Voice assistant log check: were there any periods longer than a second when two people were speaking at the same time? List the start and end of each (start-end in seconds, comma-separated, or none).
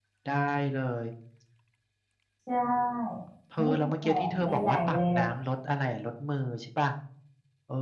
3.6-5.3